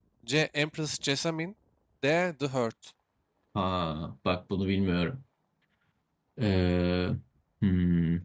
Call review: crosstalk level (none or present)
none